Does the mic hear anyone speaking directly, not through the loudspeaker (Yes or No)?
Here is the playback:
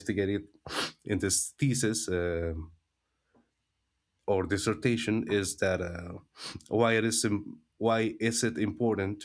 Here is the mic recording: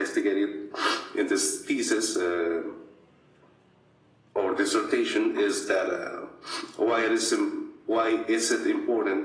No